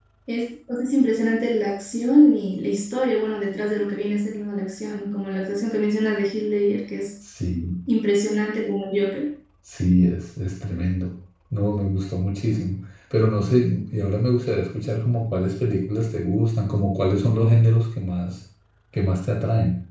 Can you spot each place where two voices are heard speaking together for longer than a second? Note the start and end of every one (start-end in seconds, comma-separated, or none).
none